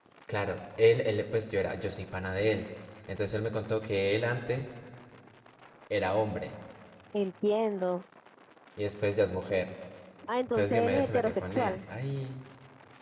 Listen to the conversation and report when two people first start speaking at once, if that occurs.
10.5 s

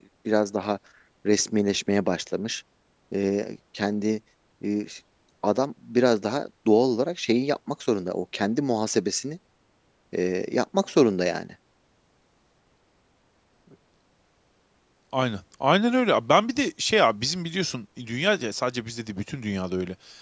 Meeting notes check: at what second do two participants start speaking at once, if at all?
none

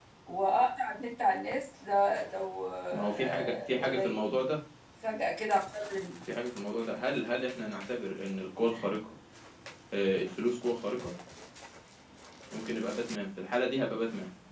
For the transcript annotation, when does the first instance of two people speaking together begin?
2.9 s

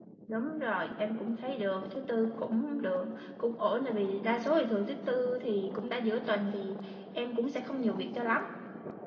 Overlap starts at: none

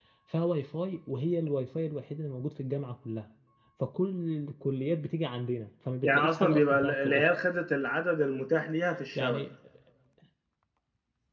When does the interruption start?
6.0 s

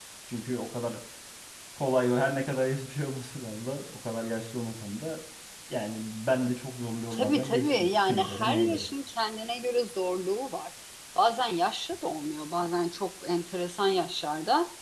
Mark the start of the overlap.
7.1 s

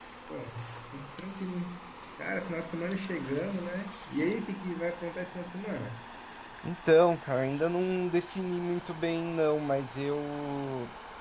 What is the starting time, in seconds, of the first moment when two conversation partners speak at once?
none

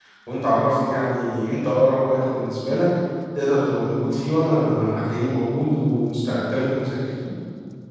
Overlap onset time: none

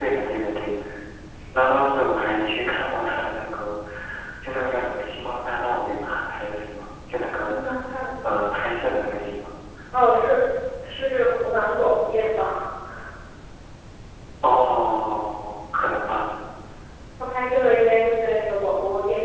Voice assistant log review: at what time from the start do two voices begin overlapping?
none

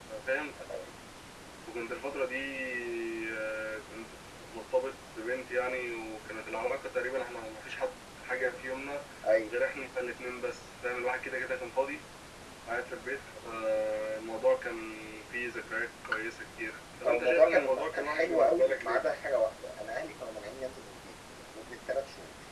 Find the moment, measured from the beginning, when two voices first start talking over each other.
17.0 s

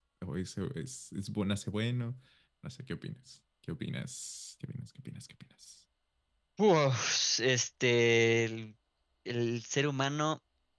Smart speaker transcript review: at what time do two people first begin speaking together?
none

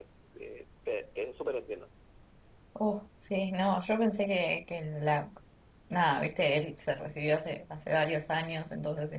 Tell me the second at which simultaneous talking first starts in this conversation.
none

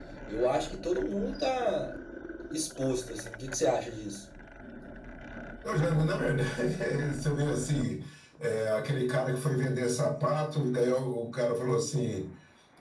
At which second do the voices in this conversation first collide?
none

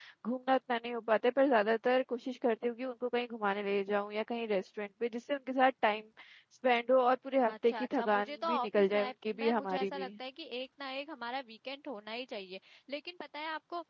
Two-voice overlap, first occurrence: 7.4 s

